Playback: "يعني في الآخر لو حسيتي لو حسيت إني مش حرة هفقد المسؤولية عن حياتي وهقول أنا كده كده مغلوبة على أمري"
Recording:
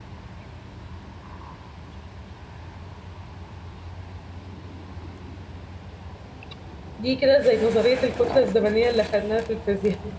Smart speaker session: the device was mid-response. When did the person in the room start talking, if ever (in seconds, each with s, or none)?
7.0 s